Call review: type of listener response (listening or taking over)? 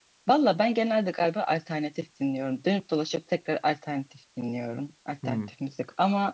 listening